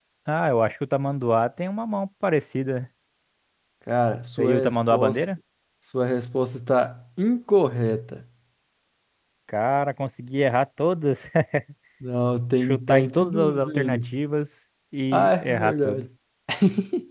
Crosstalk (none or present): present